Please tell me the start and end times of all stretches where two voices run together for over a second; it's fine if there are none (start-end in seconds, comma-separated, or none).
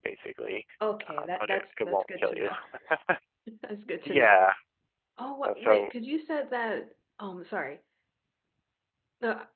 1.2-2.5